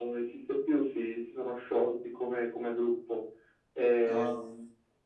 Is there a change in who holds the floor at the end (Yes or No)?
No